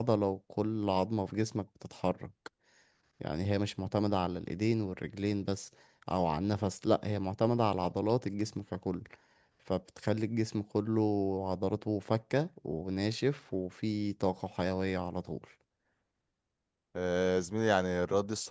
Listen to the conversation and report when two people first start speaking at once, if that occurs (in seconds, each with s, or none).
none